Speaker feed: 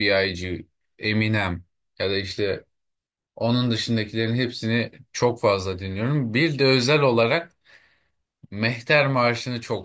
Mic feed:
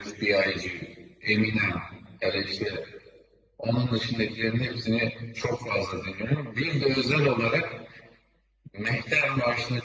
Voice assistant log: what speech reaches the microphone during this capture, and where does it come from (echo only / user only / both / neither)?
echo only